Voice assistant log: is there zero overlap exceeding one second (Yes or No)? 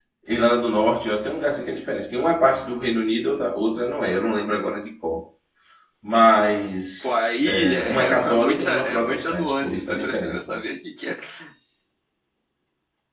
No